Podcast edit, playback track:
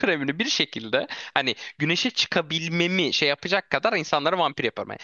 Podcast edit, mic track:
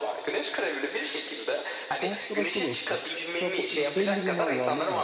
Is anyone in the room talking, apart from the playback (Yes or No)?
Yes